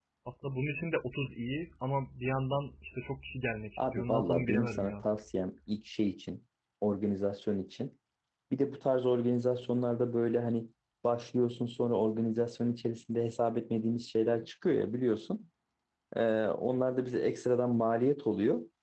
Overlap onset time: 3.8 s

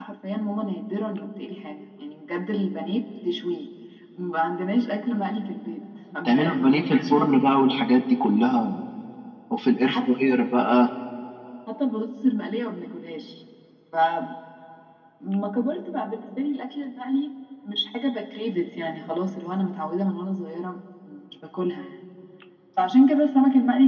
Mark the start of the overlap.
6.2 s

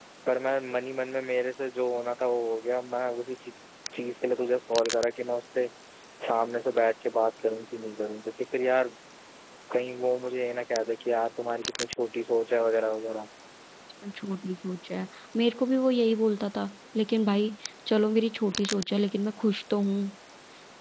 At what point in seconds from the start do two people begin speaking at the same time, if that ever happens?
none

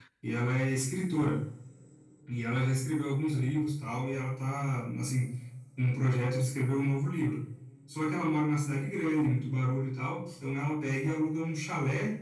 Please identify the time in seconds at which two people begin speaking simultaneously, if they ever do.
none

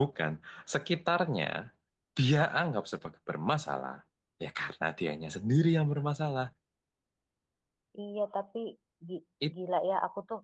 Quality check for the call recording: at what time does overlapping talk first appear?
none

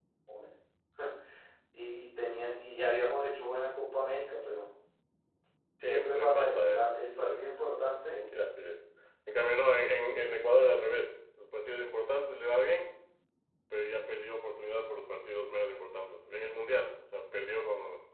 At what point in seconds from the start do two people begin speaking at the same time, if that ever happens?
5.8 s

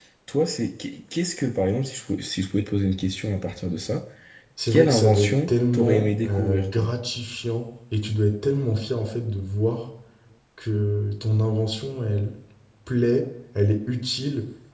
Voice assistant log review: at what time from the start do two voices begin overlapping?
4.7 s

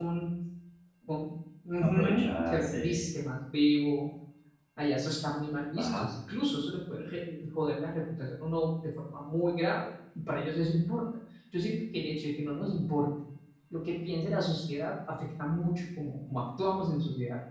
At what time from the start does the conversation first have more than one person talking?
1.8 s

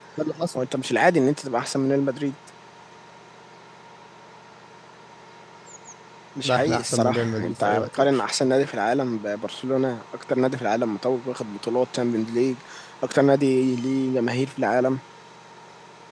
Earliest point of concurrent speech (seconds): 6.4 s

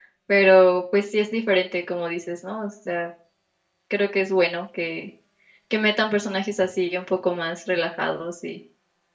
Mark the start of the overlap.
none

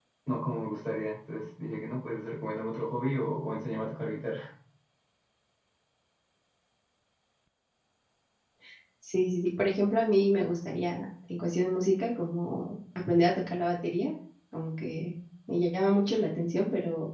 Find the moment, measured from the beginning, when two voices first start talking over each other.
none

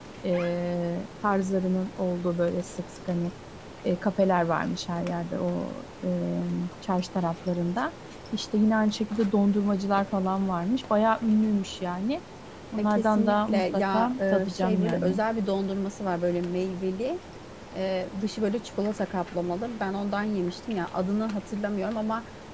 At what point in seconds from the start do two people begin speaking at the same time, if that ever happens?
12.8 s

